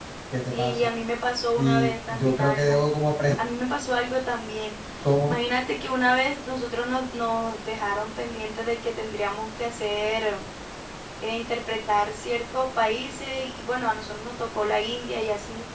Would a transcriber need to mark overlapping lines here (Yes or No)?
Yes